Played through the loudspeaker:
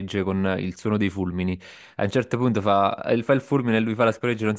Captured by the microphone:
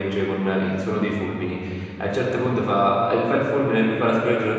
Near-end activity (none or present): none